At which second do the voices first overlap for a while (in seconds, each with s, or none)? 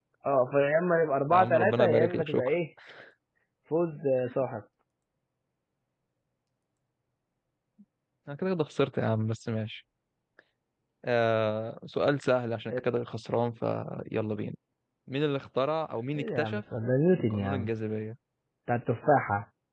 1.3 s